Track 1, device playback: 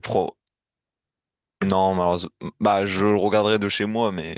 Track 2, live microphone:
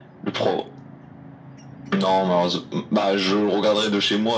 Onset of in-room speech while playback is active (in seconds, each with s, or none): none